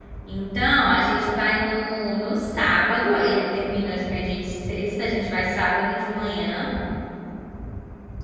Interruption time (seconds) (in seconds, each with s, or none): none